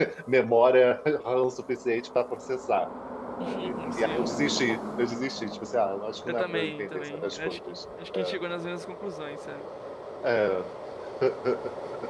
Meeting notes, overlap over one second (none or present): present